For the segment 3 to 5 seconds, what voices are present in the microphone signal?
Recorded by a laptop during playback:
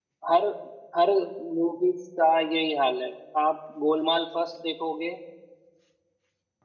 user only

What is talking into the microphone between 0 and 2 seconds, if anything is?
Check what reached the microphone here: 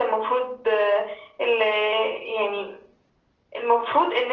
echo only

